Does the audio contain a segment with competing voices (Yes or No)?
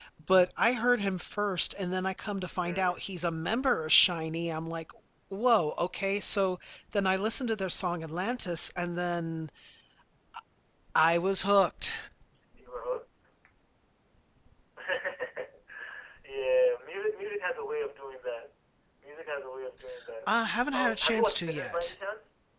Yes